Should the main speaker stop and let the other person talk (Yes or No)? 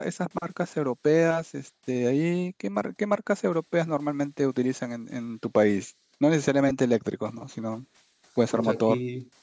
Yes